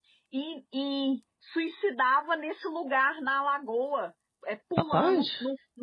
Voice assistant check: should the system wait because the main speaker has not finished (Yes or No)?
Yes